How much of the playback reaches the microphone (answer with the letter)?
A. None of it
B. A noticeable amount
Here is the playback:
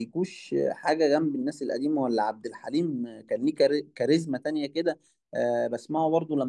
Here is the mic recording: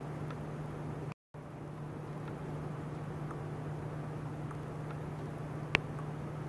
A